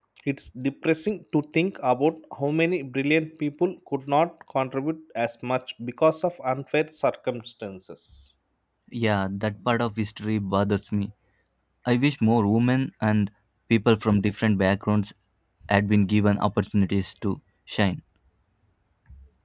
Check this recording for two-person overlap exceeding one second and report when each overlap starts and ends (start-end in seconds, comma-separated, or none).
none